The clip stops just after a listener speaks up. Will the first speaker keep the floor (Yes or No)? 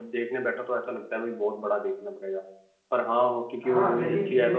No